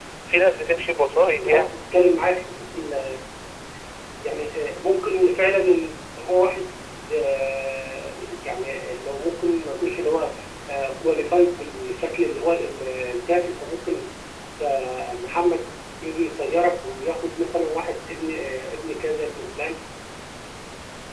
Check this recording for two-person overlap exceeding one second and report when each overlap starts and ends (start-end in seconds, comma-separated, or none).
none